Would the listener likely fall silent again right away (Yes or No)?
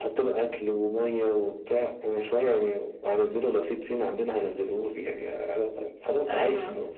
Yes